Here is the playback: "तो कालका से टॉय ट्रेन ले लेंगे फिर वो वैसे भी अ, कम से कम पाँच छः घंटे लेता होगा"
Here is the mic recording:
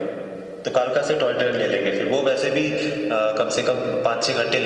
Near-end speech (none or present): none